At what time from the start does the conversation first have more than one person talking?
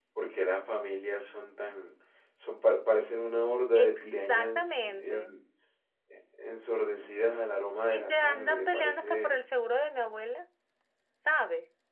3.7 s

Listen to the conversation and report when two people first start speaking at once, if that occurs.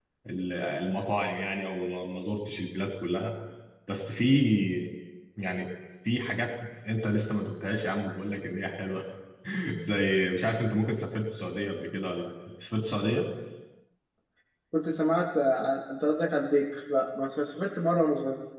none

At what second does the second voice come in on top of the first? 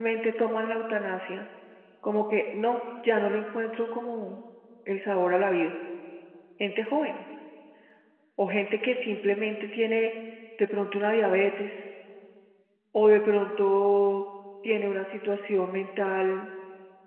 none

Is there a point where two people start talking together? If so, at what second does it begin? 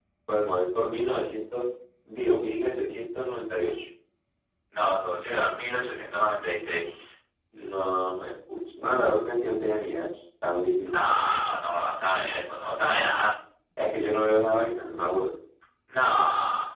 none

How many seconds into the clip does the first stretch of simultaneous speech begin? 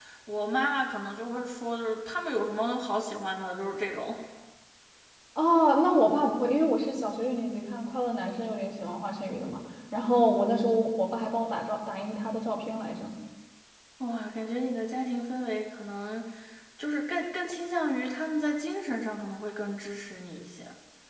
none

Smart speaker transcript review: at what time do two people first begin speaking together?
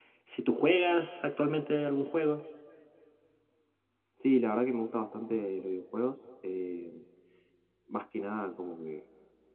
none

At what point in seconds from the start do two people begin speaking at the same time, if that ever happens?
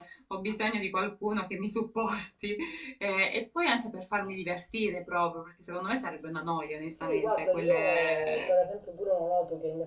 7.0 s

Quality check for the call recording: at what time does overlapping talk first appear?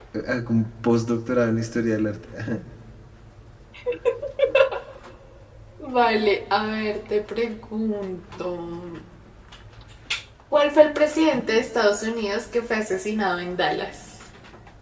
none

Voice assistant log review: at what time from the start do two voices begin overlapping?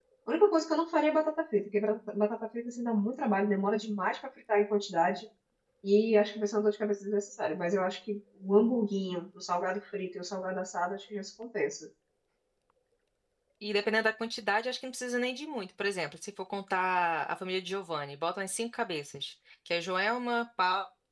none

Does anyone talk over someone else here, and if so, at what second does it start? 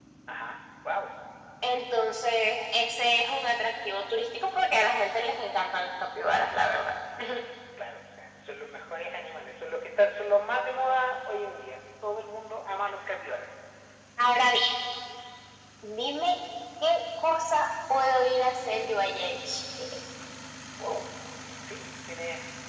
none

